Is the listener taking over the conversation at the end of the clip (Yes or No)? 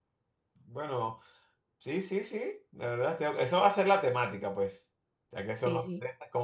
No